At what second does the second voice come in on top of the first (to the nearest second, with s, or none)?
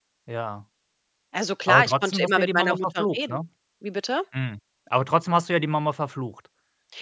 2 s